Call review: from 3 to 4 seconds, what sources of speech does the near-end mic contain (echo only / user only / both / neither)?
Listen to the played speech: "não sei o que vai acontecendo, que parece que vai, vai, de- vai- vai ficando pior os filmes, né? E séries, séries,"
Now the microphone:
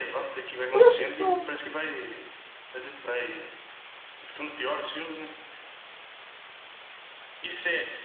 echo only